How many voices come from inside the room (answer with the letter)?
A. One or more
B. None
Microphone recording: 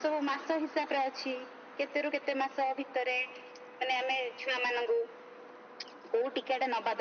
B